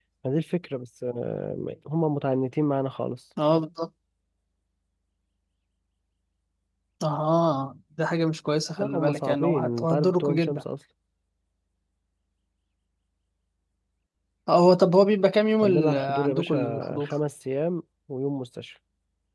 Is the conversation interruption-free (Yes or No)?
No